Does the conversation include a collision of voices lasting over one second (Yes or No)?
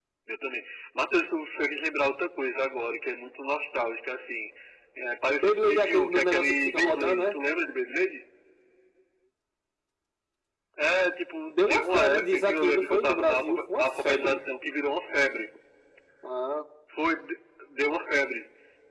Yes